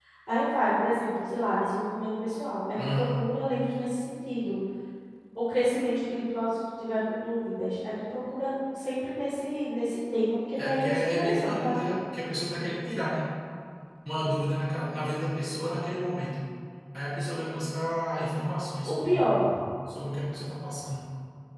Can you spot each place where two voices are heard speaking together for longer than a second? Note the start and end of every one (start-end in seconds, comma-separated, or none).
10.6-12.0